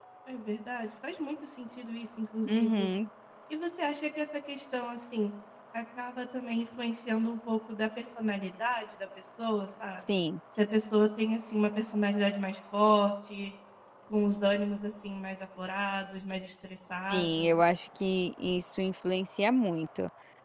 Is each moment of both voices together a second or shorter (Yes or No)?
Yes